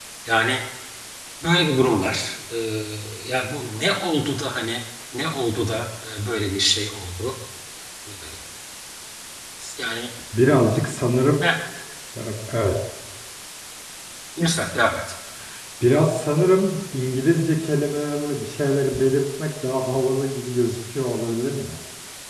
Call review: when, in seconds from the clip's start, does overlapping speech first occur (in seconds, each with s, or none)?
none